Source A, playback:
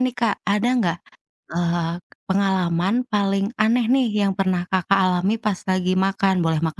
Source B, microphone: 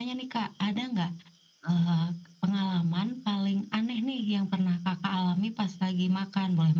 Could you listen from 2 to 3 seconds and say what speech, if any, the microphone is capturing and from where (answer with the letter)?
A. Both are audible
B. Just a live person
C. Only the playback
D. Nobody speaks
C